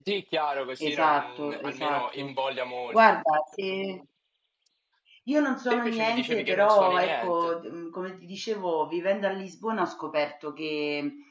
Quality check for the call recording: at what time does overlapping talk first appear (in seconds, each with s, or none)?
0.8 s